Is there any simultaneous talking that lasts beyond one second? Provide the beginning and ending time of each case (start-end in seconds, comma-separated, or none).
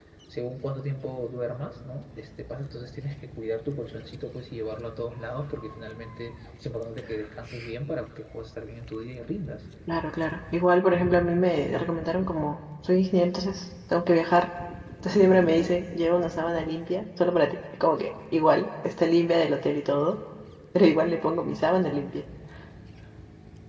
none